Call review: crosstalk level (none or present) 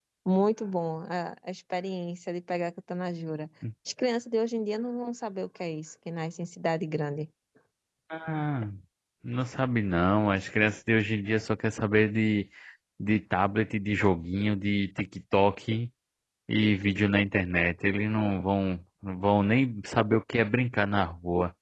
none